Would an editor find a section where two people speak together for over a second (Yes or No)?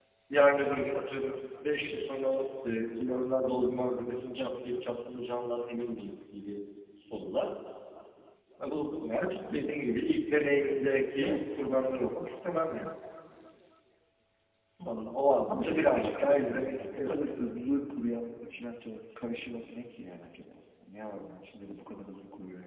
Yes